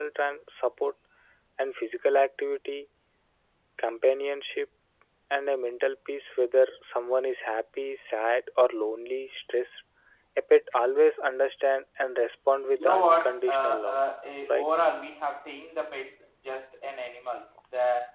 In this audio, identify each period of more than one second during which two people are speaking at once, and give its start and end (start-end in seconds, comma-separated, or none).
12.7-14.0